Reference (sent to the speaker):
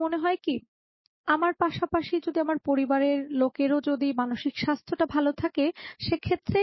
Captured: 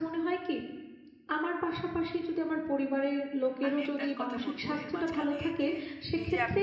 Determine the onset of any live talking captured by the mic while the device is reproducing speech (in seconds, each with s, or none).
3.7 s